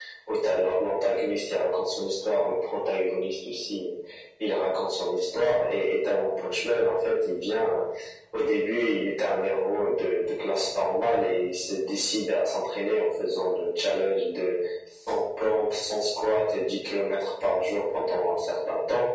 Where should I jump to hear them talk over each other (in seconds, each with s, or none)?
none